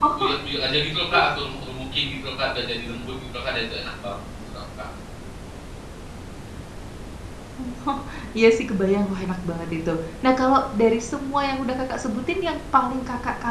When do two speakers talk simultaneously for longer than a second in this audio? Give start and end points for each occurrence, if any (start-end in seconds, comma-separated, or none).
none